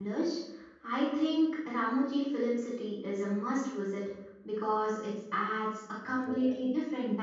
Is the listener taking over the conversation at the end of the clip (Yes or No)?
No